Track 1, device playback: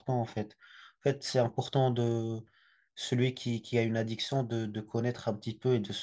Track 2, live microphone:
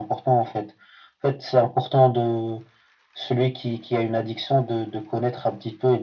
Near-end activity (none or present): none